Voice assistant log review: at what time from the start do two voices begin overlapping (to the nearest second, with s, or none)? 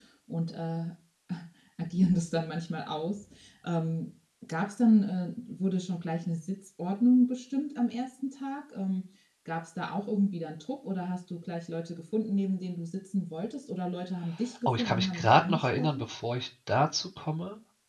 15 s